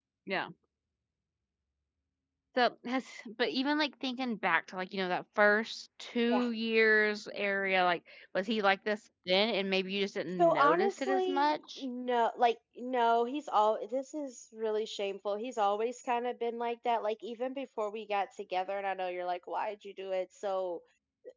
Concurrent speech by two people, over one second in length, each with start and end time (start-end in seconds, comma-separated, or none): 10.4-11.8